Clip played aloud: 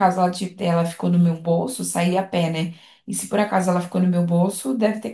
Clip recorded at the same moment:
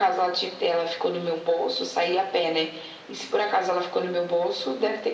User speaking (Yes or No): No